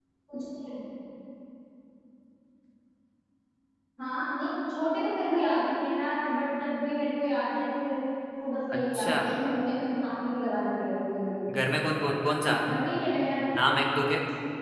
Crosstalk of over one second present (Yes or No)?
No